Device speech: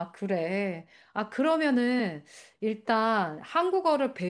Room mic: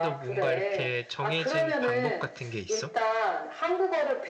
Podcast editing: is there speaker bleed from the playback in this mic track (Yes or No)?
Yes